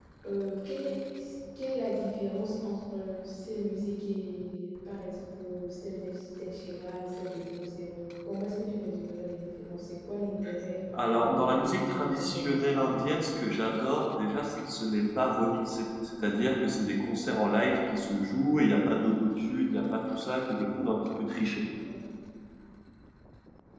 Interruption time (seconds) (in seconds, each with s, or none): 10.9 s